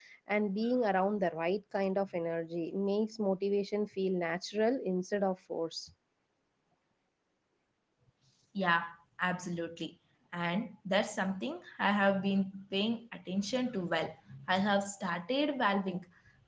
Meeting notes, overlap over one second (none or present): none